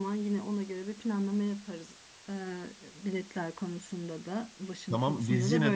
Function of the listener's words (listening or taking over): taking over